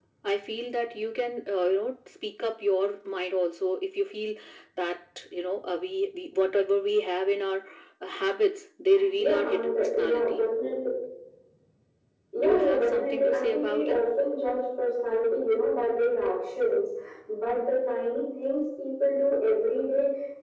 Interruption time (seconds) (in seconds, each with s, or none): 9.2 s